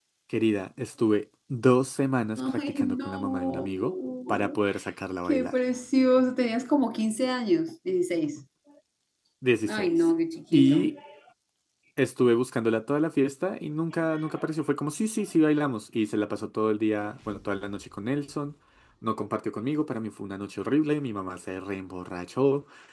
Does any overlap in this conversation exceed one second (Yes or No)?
Yes